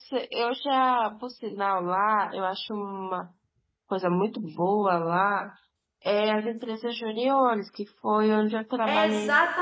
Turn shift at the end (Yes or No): Yes